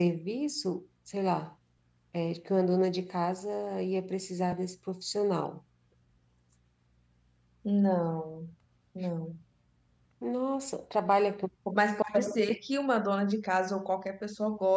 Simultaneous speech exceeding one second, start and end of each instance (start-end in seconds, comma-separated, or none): none